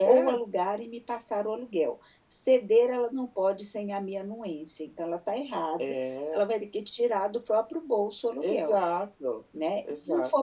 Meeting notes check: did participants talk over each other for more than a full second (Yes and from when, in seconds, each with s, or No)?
No